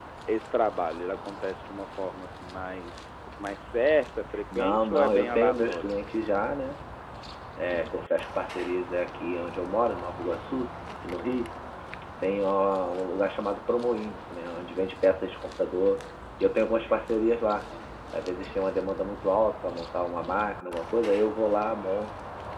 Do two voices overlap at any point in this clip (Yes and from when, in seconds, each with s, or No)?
Yes, from 4.5 s